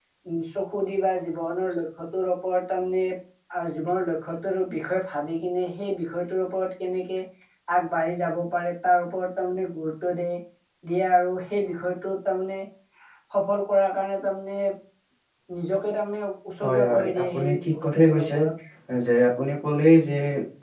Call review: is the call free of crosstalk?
No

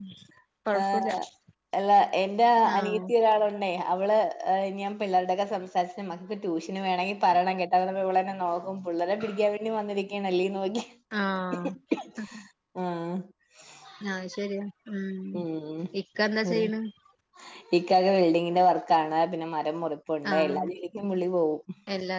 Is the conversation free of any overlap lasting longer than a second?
Yes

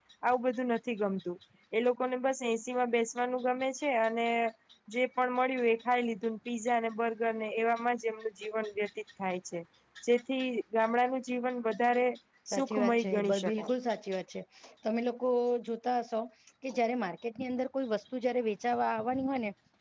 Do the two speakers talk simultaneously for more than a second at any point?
Yes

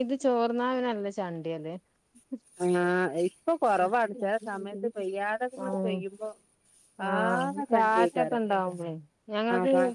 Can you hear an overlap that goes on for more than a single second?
Yes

